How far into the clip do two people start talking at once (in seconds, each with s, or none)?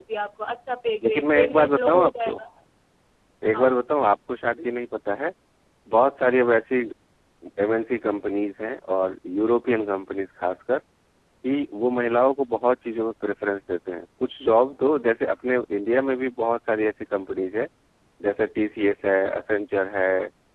1.0 s